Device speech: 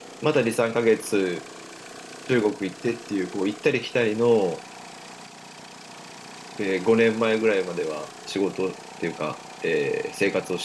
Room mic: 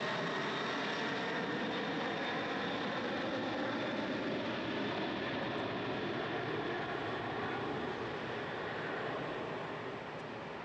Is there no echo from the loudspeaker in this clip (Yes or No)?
Yes